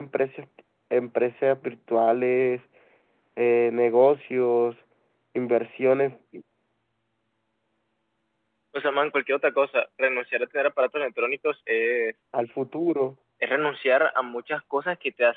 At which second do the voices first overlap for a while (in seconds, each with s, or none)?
none